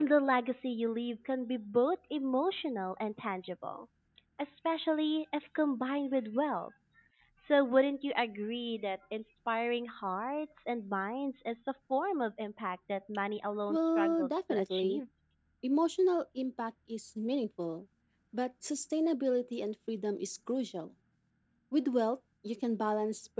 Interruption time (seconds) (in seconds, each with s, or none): 13.7 s